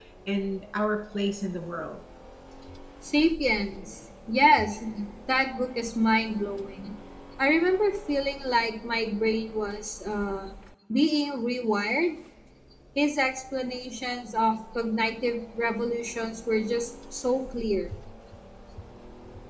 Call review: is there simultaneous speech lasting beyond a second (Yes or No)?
No